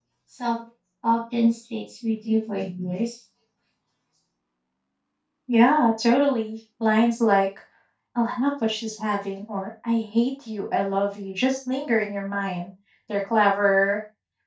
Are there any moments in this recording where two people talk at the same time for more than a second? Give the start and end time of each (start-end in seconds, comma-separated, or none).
none